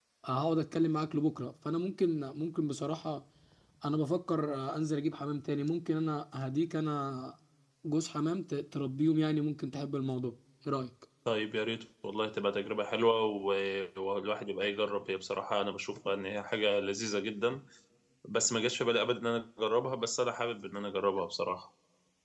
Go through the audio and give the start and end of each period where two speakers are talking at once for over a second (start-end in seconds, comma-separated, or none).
none